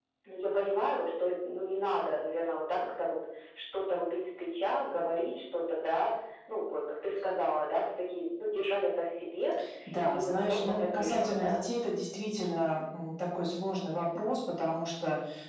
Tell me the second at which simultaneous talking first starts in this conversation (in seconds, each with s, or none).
10.1 s